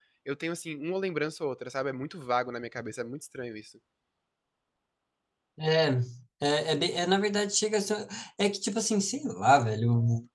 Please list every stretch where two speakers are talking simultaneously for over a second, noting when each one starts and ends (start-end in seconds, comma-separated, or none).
none